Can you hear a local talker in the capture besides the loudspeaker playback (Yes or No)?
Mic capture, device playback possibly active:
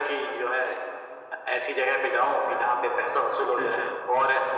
Yes